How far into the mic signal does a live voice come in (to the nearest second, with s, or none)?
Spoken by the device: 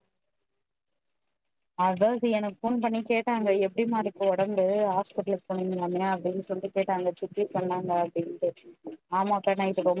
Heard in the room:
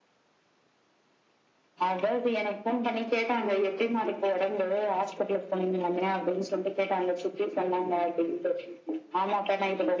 none